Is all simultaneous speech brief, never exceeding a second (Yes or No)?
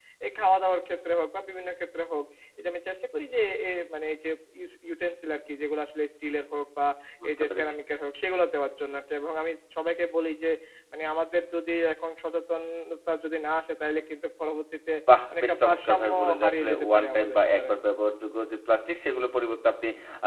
No